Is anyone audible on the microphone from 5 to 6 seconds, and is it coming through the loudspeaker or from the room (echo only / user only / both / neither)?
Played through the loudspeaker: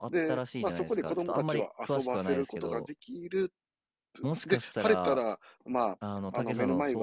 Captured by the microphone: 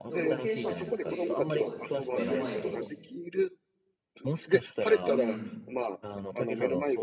both